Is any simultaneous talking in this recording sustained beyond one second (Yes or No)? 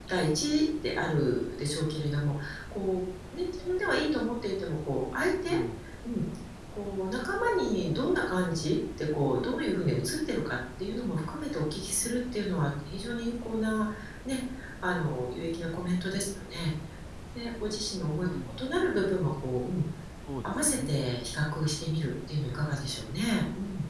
No